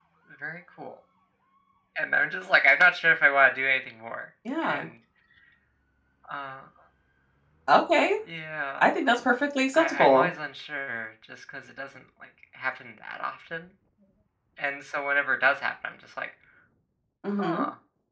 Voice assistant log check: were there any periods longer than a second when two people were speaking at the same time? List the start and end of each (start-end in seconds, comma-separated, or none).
none